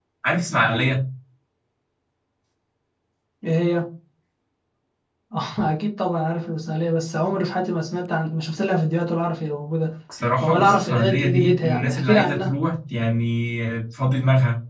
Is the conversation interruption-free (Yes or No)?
No